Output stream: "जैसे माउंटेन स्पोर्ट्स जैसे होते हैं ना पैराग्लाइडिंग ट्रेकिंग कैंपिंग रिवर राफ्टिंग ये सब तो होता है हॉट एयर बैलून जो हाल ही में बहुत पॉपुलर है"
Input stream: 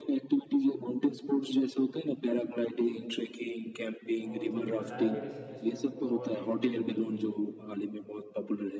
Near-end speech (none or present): present